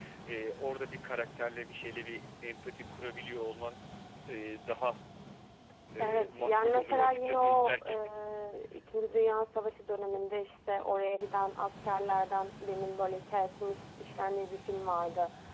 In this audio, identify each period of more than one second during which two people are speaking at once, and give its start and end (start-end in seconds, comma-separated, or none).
6.0-8.0